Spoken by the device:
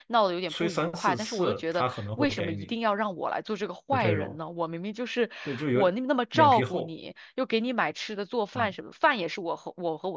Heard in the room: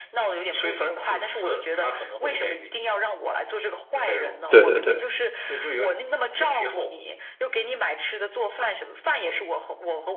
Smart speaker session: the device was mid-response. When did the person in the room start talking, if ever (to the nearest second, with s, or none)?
4 s